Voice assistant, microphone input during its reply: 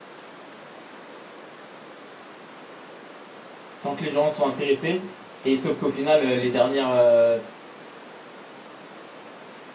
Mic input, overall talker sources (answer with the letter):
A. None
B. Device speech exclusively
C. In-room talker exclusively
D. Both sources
C